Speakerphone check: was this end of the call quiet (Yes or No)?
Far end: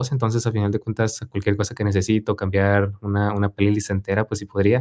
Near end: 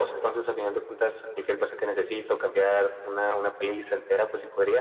Yes